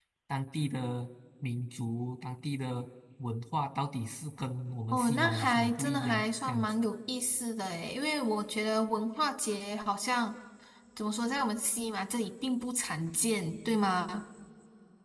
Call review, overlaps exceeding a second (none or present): present